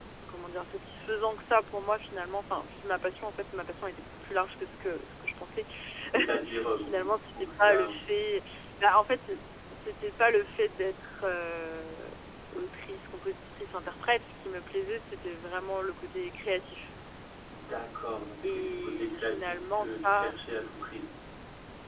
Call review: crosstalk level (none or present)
present